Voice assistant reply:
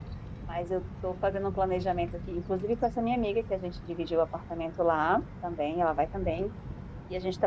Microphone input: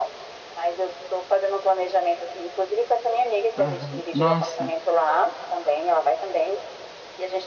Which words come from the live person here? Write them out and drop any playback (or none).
aham. Nossa,